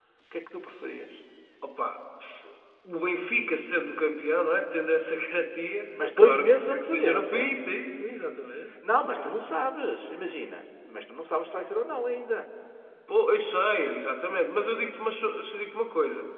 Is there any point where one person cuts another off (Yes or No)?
Yes